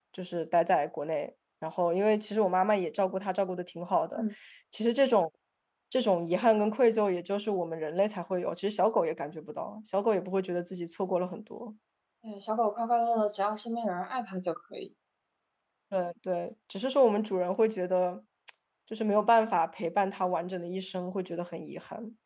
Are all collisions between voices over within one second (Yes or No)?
Yes